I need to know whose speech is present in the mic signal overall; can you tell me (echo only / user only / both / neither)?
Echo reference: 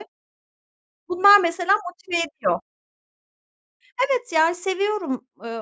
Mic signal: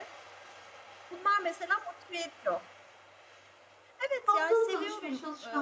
both